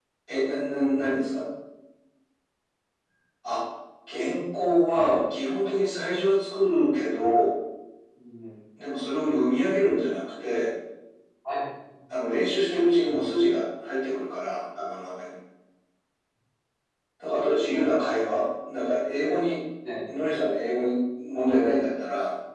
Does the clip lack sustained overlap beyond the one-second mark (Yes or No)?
Yes